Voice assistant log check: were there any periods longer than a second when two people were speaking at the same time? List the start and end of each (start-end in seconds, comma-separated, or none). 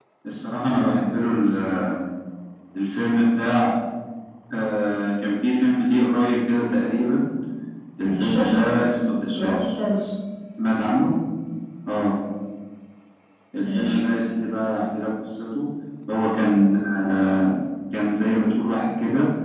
none